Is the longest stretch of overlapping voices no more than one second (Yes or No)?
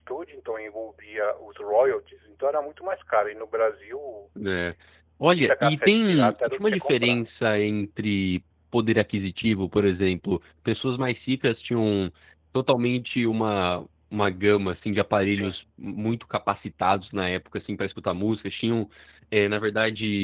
No